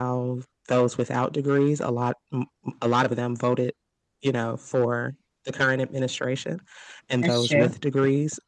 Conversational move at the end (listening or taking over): listening